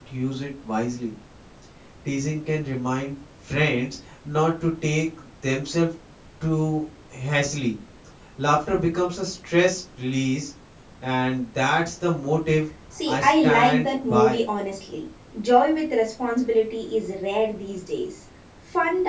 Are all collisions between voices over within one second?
No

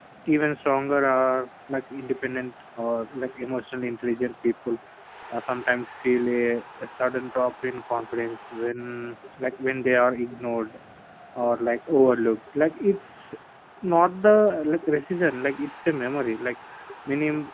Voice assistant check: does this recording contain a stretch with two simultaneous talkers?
No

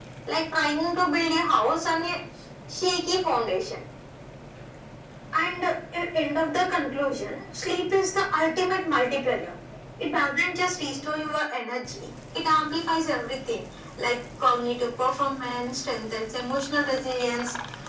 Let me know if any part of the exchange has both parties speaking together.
No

